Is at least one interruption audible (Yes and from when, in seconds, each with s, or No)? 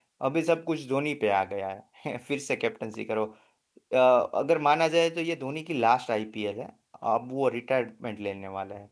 No